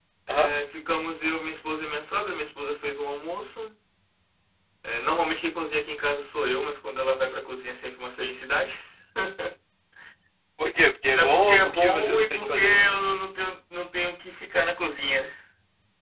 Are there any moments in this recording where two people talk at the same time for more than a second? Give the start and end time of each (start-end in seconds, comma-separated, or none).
11.2-12.7